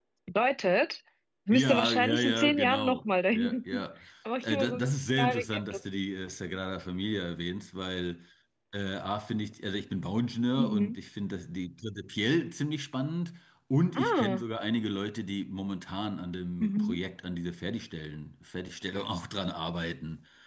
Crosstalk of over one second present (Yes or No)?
Yes